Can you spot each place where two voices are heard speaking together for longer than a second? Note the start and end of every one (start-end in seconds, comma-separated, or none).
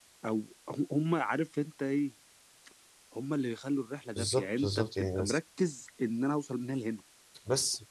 4.2-5.4